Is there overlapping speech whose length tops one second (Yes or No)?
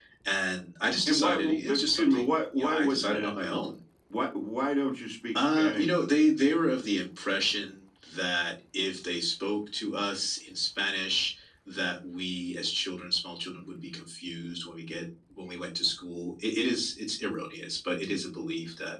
Yes